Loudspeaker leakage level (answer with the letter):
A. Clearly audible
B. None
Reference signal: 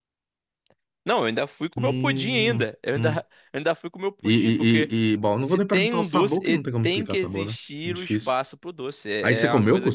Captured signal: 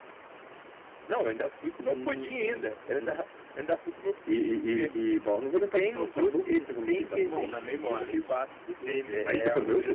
A